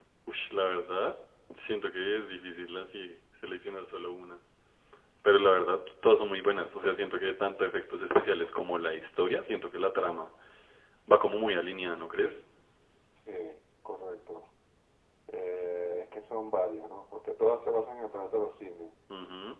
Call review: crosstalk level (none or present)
none